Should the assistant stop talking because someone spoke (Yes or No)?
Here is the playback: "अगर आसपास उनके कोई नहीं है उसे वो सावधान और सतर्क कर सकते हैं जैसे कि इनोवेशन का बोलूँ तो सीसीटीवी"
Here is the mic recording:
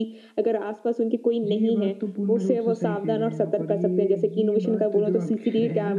Yes